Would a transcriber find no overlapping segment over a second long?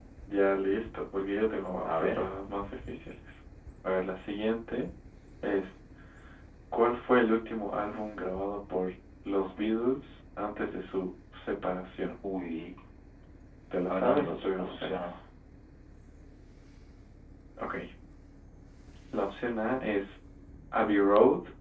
No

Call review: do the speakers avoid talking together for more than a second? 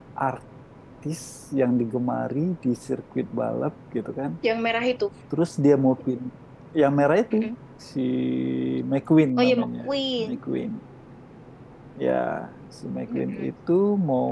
Yes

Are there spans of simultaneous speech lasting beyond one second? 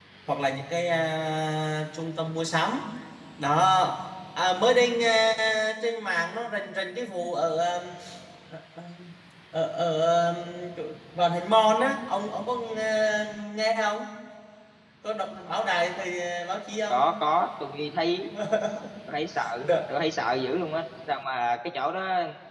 No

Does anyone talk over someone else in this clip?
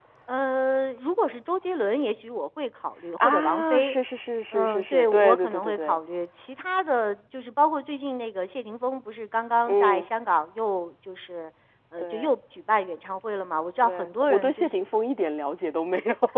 Yes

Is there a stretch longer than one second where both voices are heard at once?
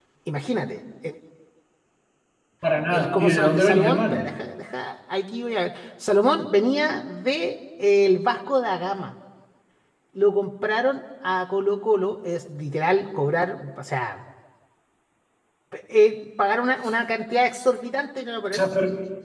Yes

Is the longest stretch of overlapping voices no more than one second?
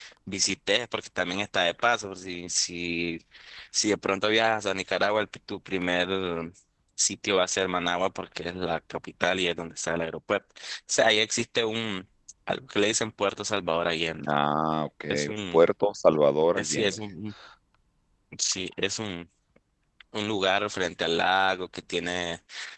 Yes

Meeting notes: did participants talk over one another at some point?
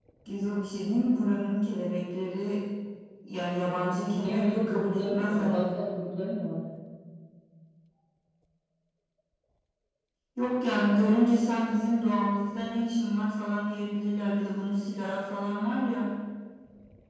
Yes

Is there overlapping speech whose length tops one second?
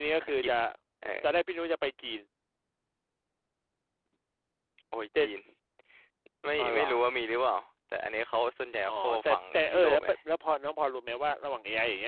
Yes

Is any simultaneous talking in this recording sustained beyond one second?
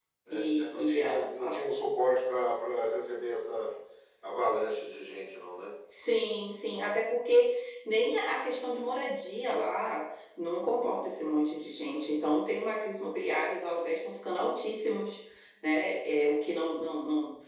Yes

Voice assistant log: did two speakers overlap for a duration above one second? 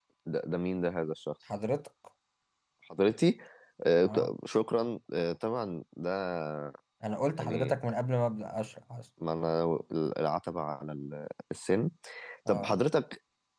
No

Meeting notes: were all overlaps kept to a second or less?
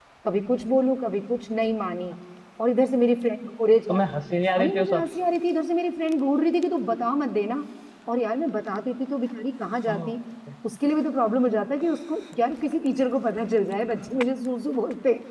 Yes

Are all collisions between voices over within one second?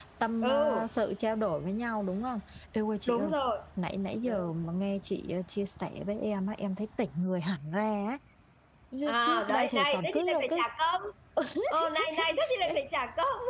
No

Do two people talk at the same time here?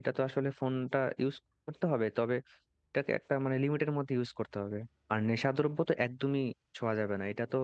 No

